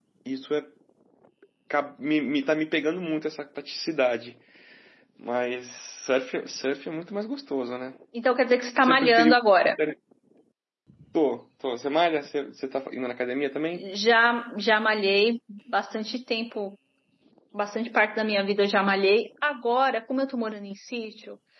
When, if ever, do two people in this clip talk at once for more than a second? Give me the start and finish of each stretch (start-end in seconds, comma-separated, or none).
none